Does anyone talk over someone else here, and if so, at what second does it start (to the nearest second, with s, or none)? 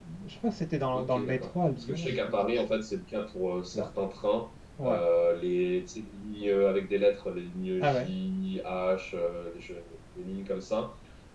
1 s